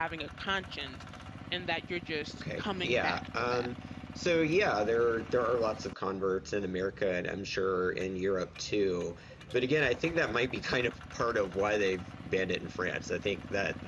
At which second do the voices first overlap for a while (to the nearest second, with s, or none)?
2 s